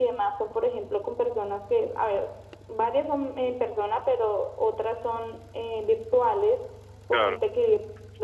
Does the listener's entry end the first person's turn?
No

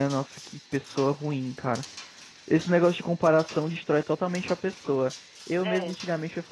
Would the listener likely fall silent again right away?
Yes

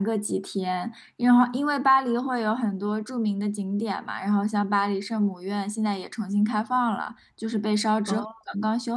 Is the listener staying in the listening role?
Yes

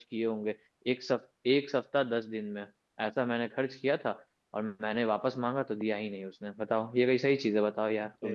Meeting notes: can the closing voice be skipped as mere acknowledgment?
No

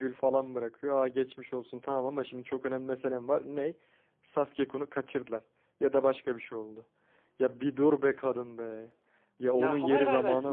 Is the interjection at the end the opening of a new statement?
Yes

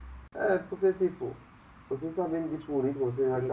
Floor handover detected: Yes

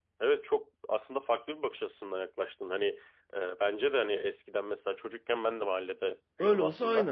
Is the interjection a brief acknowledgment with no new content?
No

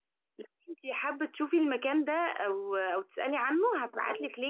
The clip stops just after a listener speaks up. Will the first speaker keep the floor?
Yes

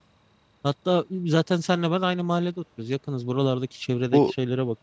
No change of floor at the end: No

